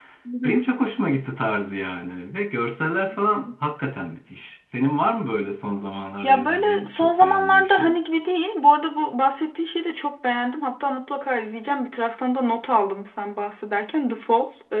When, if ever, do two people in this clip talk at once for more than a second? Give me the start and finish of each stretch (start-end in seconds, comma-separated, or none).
6.2-7.9